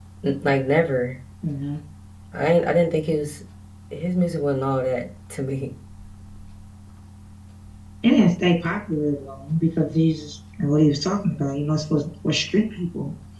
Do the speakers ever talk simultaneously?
No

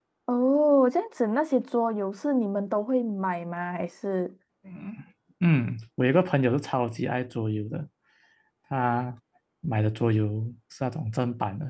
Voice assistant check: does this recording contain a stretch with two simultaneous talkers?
No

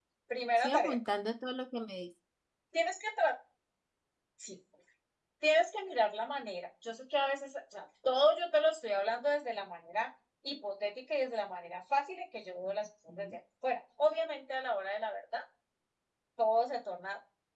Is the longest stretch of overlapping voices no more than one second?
Yes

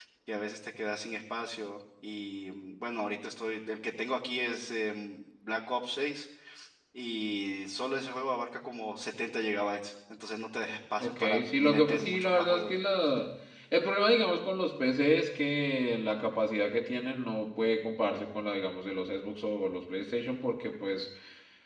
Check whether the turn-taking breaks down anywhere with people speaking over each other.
Yes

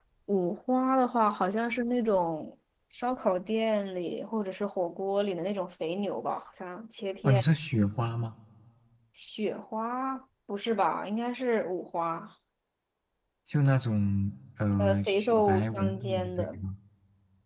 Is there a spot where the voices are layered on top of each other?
Yes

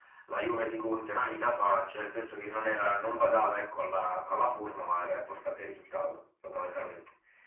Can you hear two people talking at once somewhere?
No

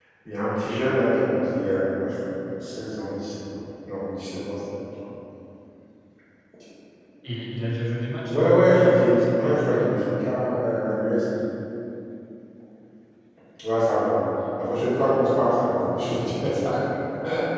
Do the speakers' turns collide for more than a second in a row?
Yes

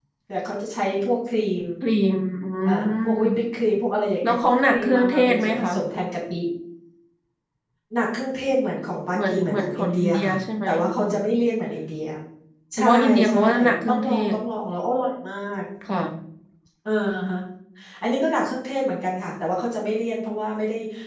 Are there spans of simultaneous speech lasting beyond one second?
Yes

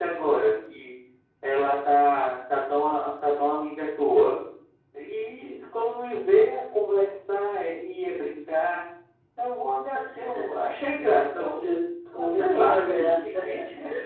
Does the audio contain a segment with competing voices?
Yes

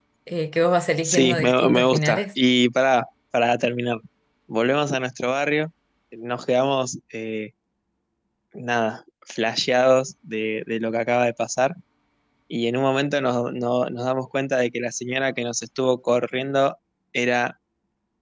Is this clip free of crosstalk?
No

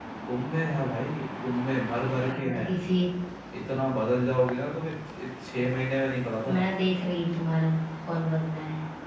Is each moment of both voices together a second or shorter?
Yes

